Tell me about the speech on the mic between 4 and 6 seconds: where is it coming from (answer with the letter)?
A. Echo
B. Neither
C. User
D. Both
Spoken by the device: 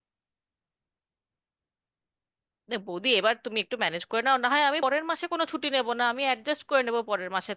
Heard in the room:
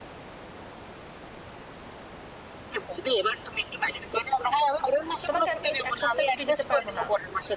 D